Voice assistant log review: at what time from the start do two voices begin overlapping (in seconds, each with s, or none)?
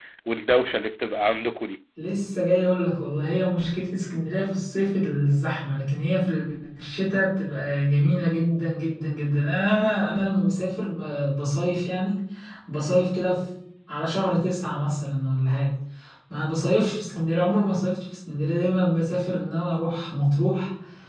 none